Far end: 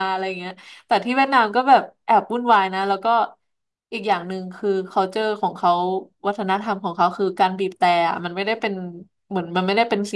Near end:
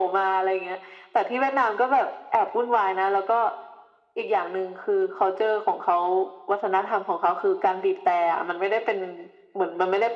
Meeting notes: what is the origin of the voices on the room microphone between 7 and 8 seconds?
echo only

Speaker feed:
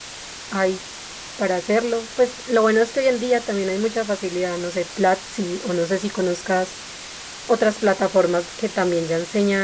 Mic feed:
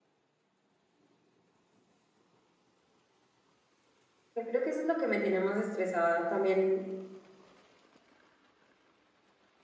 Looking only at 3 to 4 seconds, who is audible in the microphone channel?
neither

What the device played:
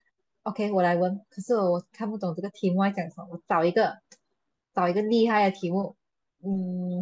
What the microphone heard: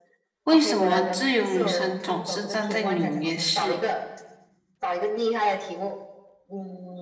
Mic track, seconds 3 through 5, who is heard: both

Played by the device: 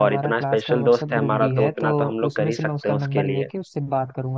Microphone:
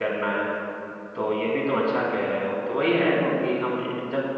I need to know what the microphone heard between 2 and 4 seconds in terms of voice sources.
user only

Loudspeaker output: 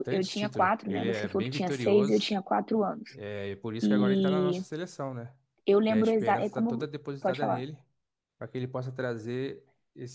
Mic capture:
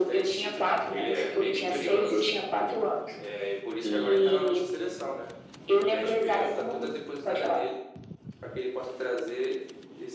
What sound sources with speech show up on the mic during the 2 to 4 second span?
echo only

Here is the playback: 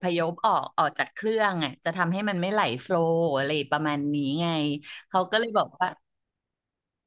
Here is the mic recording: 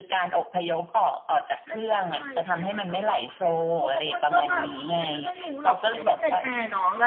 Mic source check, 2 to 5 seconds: both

